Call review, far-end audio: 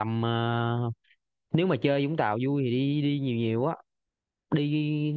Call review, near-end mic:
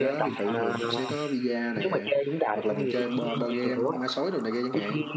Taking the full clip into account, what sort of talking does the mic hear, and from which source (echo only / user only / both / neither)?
both